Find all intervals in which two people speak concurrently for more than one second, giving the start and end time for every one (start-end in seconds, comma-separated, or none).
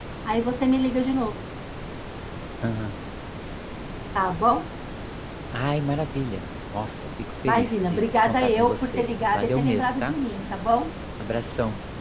7.5-10.2